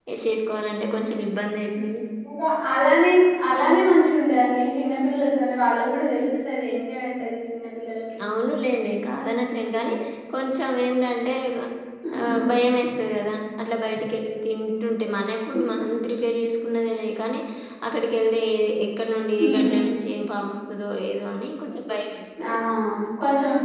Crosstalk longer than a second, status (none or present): none